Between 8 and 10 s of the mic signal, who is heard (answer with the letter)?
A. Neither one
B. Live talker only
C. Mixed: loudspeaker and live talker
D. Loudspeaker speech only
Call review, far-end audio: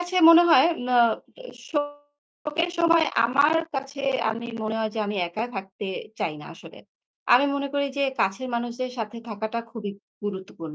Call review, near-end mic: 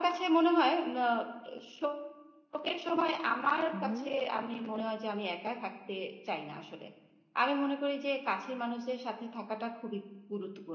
D